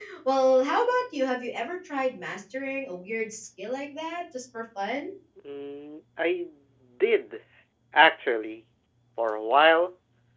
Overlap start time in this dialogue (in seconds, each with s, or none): none